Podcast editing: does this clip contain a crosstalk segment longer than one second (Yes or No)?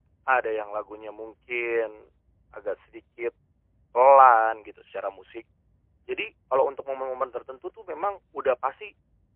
No